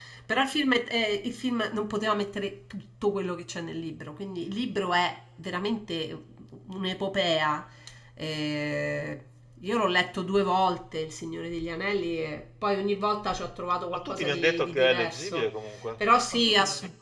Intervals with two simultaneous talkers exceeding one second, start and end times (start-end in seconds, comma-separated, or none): 13.9-15.5